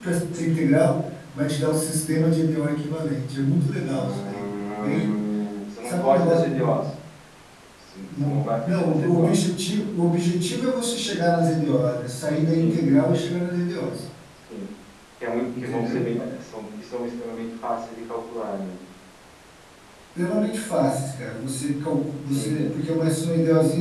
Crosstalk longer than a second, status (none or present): present